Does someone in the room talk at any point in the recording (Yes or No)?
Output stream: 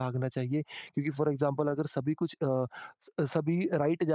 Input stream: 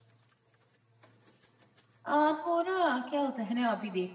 Yes